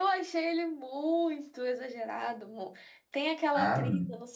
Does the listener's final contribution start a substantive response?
No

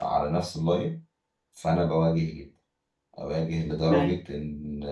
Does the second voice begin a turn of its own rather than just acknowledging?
No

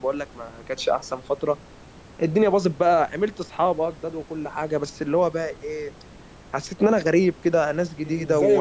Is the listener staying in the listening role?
No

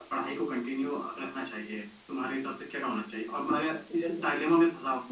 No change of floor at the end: Yes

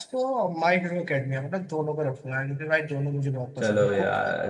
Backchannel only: No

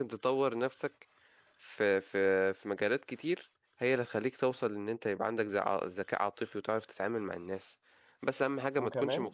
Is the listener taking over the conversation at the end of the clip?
No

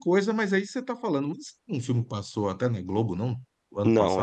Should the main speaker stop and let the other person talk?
Yes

